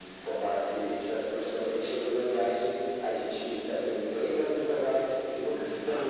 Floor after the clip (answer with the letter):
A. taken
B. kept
A